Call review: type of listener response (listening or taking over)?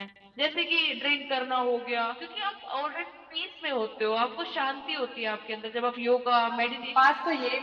taking over